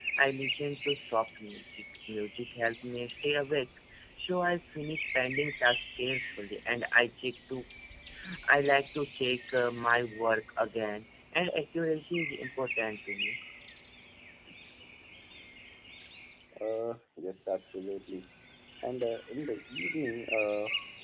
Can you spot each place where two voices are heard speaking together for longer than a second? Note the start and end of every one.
none

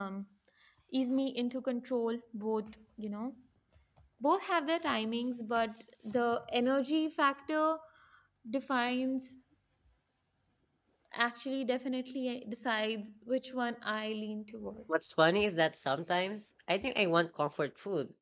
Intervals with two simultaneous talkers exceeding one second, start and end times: none

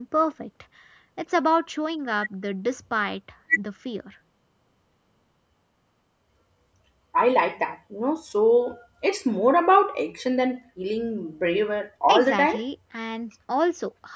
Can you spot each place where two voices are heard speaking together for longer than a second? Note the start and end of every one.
none

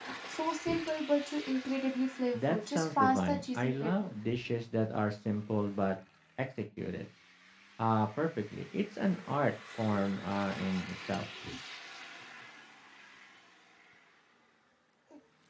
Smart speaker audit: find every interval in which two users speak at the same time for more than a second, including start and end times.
2.3-4.1

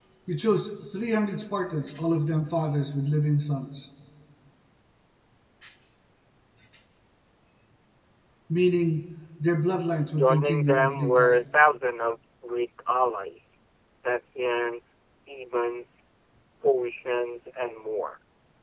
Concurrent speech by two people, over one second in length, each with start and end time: 10.1-11.4

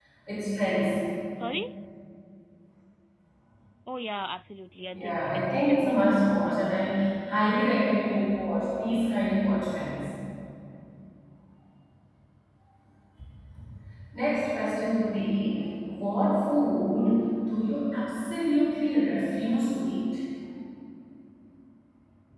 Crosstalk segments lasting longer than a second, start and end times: 4.9-6.7

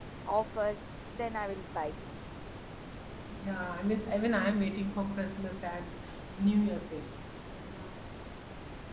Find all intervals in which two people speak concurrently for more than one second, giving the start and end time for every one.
none

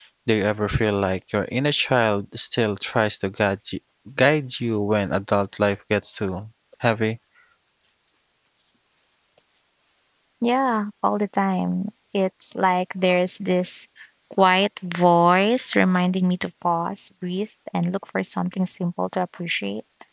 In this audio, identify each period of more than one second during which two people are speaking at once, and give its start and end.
none

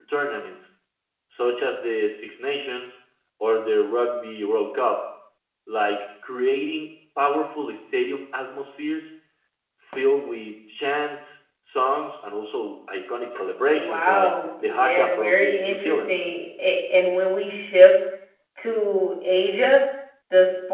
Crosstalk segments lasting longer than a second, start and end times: 13.7-16.2

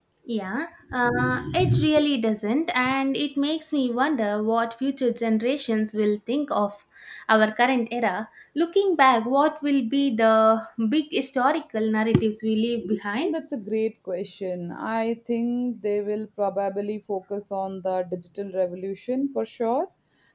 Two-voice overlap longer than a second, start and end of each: none

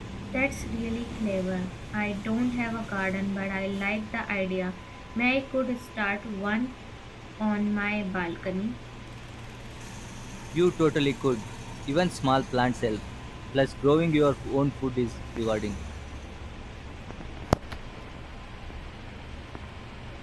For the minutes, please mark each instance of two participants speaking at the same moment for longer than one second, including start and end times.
none

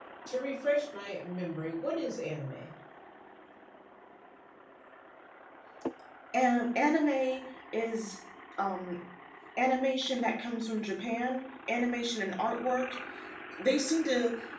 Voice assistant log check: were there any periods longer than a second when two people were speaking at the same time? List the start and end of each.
none

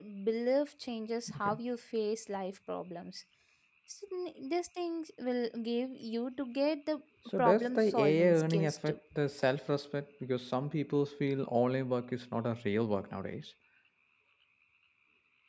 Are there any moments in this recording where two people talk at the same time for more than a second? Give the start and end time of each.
7.4-8.9

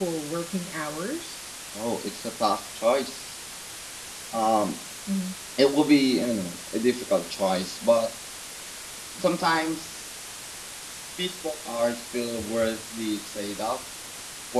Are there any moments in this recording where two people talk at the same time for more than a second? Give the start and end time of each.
none

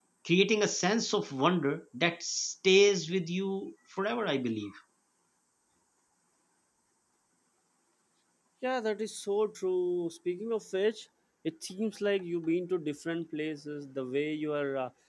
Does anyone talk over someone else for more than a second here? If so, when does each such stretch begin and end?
none

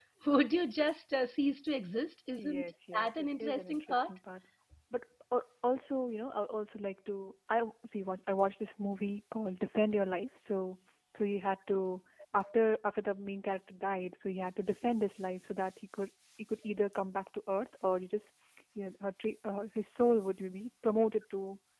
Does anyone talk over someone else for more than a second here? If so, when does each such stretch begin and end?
2.4-4.1

